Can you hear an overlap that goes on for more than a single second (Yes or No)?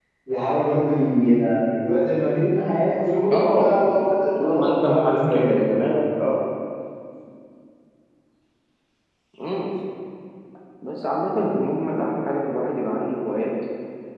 Yes